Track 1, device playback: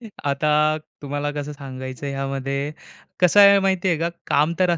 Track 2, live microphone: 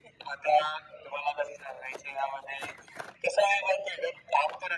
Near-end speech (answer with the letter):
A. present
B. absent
B